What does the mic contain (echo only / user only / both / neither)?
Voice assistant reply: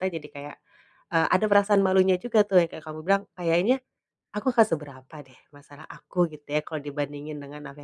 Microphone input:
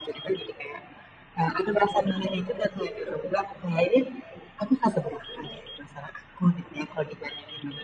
echo only